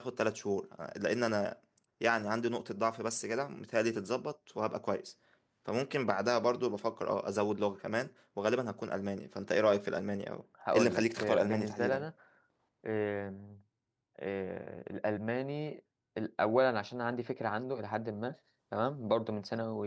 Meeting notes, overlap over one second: present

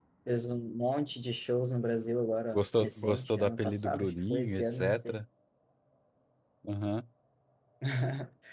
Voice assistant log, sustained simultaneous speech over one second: present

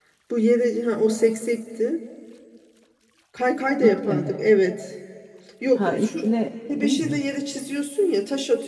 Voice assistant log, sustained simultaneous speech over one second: none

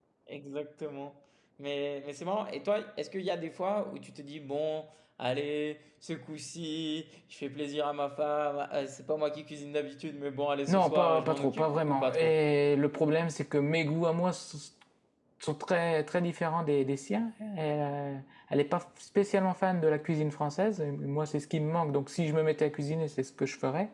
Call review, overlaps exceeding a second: present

